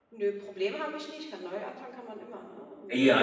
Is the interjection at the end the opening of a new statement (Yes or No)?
Yes